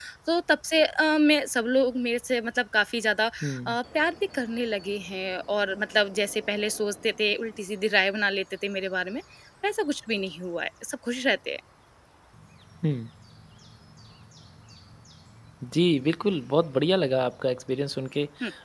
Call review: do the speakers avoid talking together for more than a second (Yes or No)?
Yes